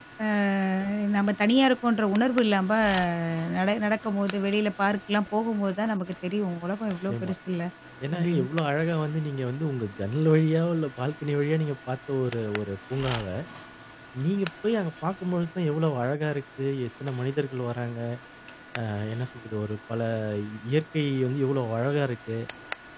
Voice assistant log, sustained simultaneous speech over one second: none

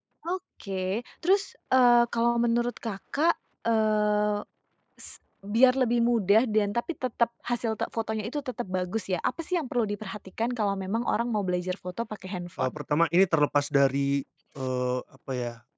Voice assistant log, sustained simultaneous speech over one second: none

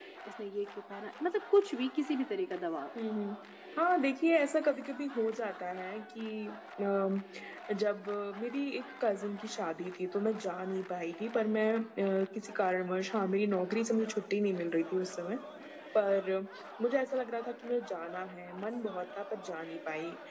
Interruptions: none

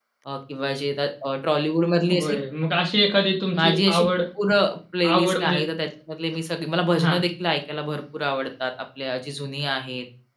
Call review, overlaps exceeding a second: none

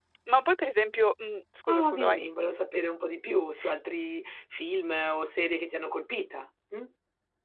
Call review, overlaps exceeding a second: none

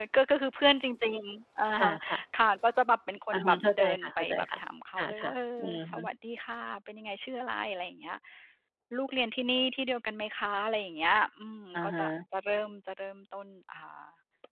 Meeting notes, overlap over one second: present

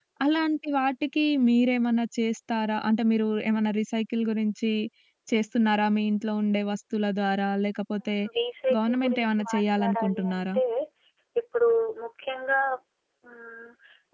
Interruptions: present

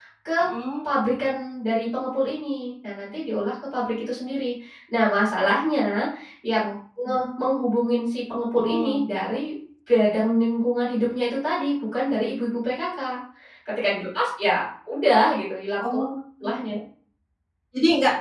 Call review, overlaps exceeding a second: none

